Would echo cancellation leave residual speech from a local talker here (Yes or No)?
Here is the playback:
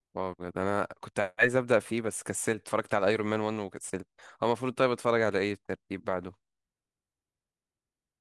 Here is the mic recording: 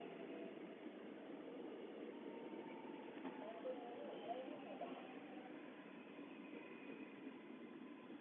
No